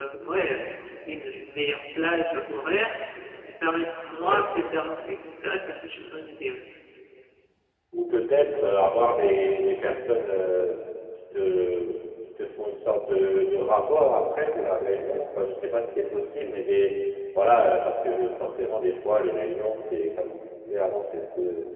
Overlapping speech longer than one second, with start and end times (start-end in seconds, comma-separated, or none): none